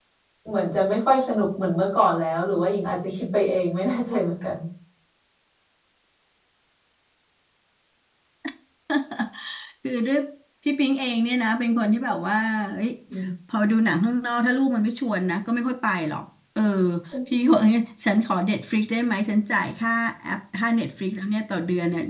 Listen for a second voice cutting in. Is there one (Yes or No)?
No